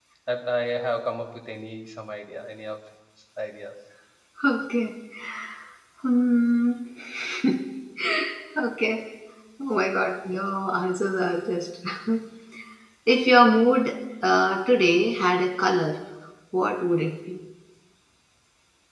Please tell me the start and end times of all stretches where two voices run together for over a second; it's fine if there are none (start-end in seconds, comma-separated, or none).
none